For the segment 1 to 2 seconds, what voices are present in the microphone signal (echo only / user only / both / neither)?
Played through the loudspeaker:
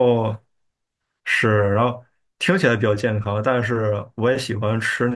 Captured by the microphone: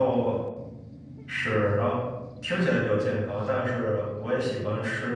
echo only